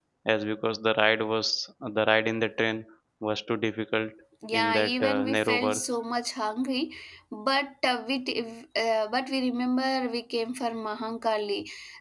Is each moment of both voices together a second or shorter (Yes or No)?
No